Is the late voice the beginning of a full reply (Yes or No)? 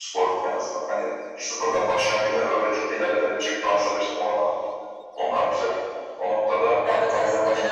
Yes